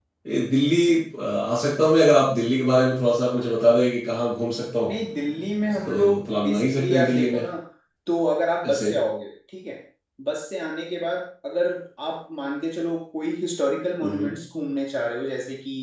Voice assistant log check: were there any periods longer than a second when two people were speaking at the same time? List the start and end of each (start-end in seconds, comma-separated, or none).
5.8-7.4